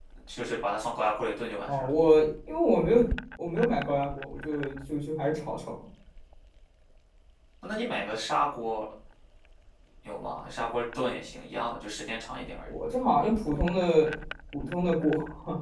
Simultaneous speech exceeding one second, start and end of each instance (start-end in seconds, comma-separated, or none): none